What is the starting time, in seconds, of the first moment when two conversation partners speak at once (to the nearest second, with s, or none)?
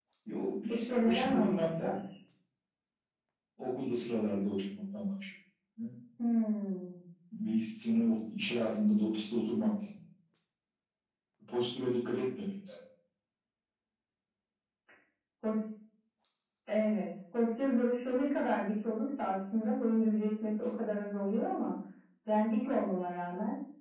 1 s